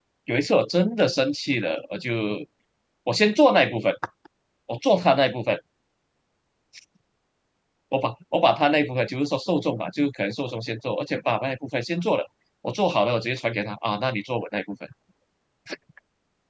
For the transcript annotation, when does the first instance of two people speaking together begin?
none

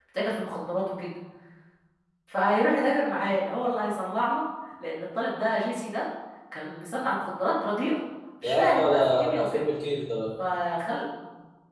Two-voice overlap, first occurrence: 8.4 s

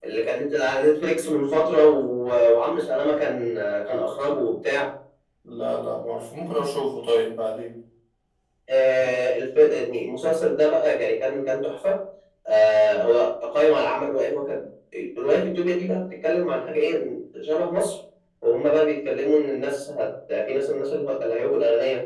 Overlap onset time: none

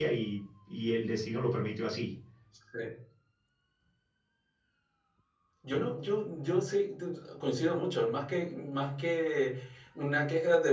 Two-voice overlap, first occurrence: none

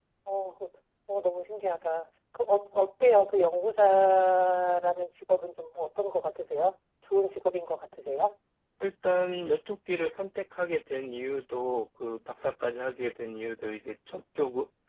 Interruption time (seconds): none

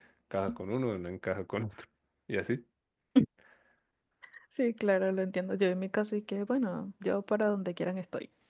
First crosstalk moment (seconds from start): none

